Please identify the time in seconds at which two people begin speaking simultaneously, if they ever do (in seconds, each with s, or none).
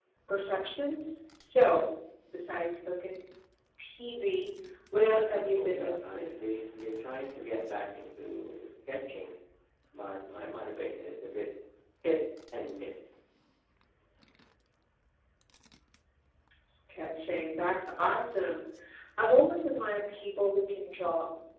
5.0 s